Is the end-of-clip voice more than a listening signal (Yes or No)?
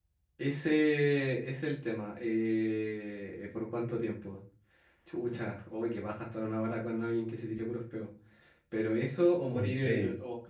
No